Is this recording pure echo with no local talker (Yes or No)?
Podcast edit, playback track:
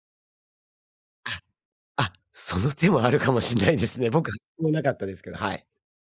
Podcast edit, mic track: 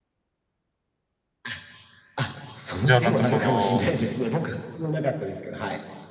No